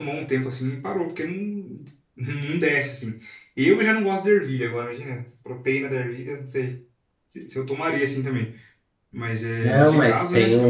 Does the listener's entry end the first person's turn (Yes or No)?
Yes